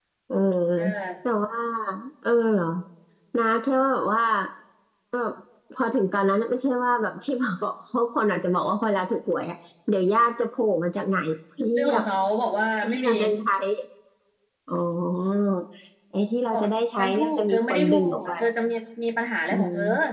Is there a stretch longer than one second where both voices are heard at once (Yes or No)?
Yes